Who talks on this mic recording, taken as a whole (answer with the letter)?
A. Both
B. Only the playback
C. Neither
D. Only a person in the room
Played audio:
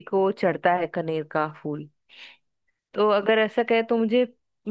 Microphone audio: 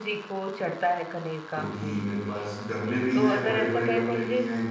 A